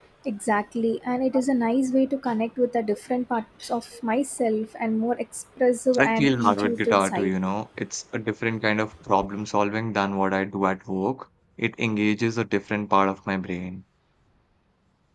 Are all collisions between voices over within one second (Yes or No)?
No